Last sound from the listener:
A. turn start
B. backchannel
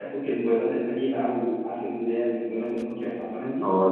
A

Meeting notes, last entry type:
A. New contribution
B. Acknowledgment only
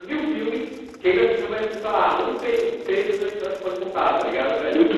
A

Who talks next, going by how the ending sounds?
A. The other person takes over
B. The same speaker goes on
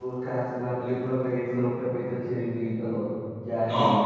A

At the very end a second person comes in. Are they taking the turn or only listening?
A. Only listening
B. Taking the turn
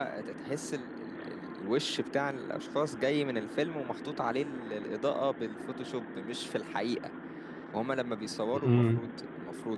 A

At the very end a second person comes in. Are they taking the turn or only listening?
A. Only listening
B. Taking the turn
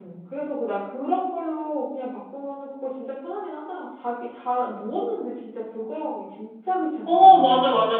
B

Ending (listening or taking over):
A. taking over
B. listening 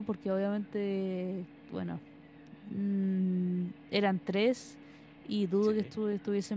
B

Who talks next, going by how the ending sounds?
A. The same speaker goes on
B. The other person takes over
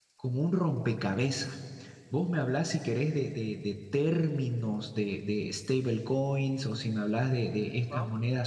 A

